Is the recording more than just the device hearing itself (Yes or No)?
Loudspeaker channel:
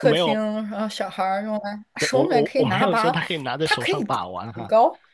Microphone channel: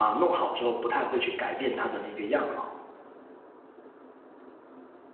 Yes